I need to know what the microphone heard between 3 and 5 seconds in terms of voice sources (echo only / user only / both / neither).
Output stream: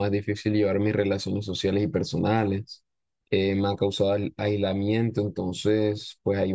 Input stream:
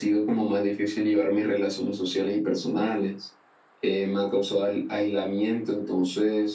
echo only